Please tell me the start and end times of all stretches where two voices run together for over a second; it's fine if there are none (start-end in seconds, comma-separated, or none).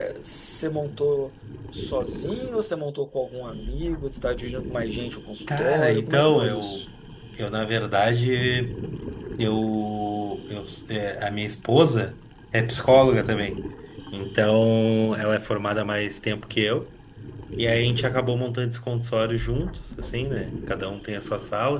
5.6-6.8